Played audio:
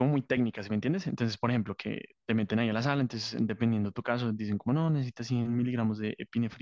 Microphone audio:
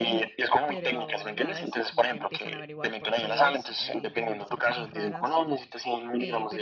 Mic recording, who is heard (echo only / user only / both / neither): both